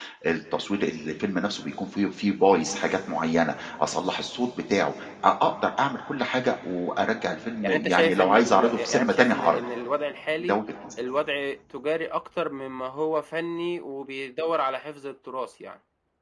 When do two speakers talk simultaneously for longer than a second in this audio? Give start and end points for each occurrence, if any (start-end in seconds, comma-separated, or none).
7.6-9.6